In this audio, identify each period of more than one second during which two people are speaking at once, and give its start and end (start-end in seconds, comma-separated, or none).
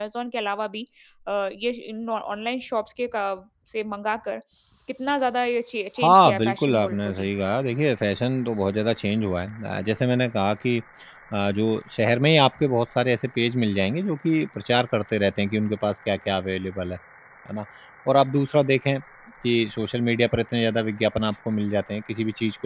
6.0-7.3